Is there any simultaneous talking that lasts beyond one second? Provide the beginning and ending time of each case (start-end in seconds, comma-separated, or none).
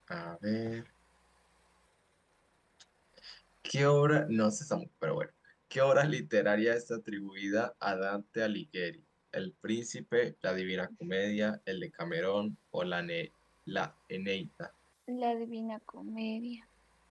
none